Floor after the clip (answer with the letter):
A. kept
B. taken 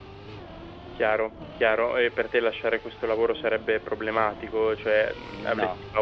A